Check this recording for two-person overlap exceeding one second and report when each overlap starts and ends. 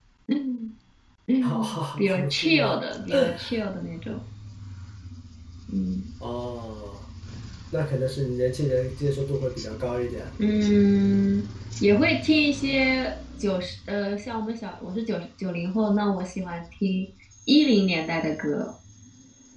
1.4-2.8

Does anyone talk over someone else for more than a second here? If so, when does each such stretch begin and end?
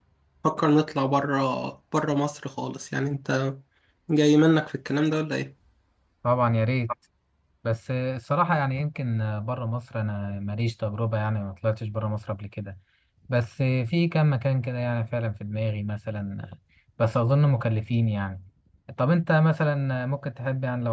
none

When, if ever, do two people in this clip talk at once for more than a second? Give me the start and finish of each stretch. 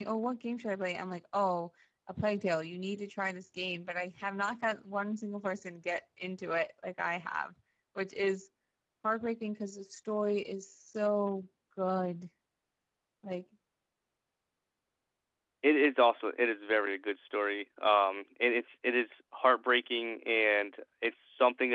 none

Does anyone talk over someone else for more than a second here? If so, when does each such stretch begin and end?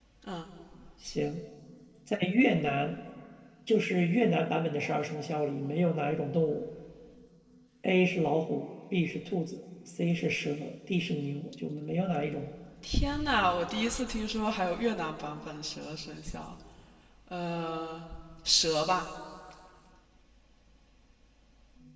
none

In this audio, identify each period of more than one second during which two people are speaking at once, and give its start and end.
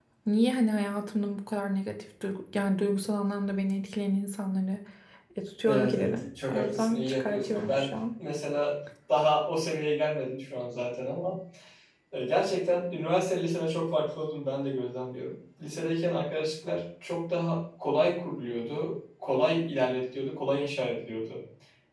5.7-7.9

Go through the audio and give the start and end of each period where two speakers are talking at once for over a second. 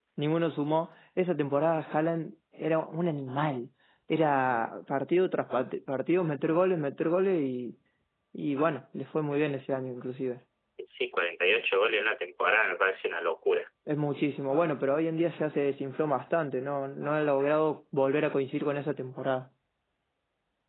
none

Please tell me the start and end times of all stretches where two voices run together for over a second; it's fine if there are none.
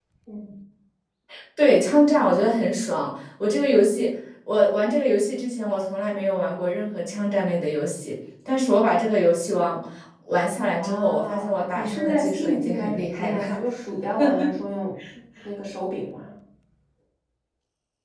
10.7-13.4

